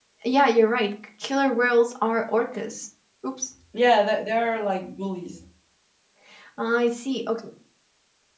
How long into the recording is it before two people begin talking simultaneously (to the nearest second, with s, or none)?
none